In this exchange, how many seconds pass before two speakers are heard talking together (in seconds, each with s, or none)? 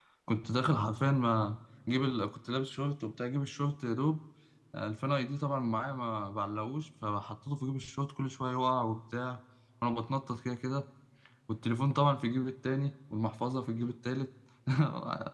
none